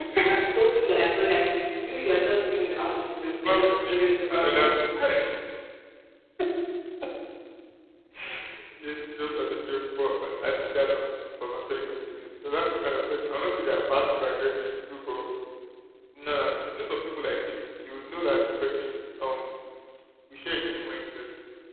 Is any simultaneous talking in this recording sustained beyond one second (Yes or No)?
Yes